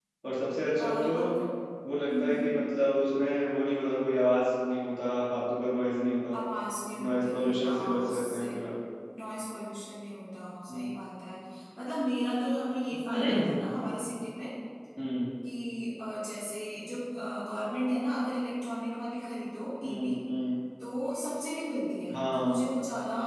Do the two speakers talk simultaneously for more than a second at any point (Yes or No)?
Yes